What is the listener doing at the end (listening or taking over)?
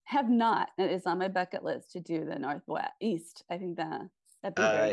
taking over